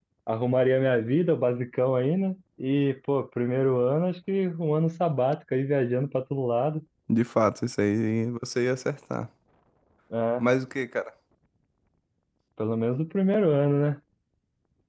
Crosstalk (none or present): none